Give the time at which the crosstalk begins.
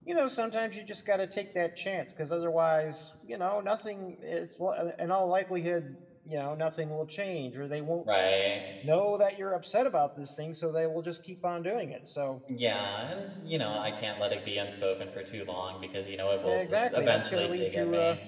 16.4 s

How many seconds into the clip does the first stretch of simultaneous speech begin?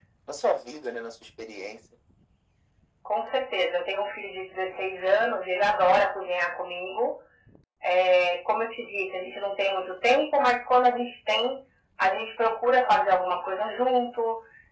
none

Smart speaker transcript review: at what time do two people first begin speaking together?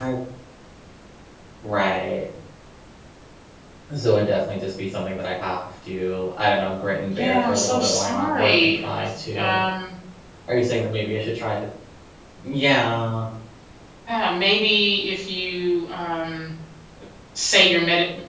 7.1 s

